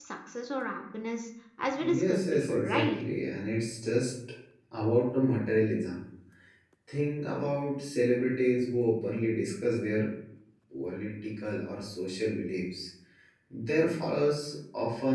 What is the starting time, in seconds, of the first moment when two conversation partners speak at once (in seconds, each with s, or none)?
1.7 s